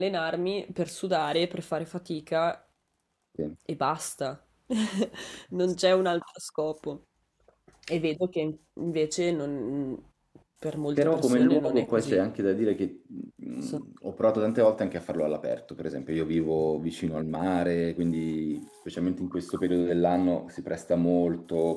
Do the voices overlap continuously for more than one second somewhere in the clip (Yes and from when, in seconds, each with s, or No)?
Yes, from 11.0 s